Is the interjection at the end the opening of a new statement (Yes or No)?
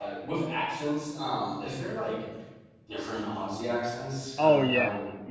Yes